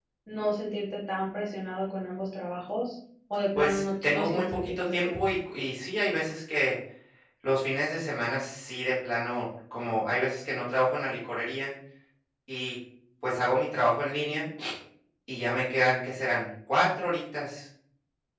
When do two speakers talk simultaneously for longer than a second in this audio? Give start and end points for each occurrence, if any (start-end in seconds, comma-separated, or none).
3.5-5.2